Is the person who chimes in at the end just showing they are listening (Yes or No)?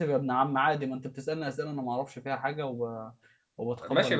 No